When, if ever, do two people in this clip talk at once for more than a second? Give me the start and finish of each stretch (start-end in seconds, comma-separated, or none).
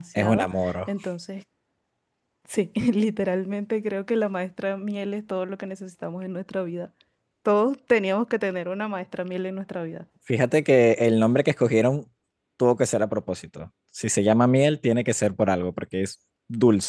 none